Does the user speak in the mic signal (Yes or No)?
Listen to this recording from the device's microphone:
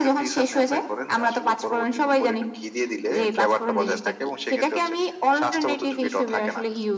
No